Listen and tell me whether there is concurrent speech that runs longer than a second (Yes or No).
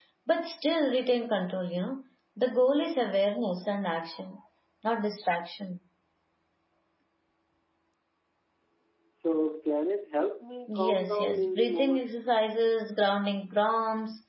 Yes